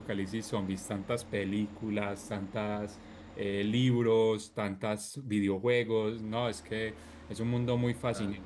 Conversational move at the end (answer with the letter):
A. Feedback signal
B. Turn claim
A